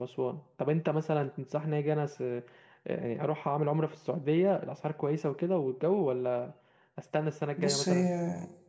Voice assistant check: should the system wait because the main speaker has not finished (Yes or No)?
No